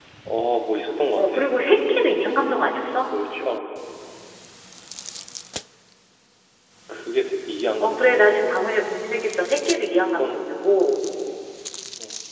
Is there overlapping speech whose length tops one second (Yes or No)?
No